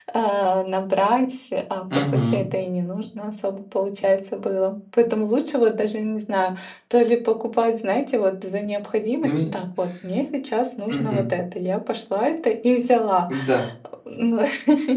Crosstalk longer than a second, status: none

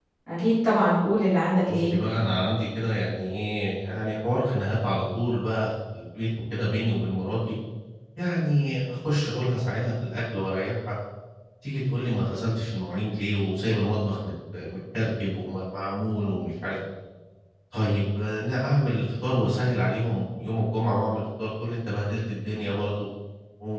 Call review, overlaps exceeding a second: none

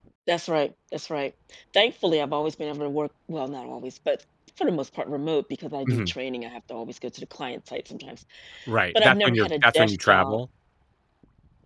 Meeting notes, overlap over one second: present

